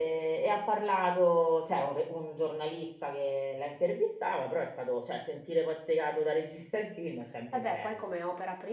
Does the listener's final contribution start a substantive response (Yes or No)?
Yes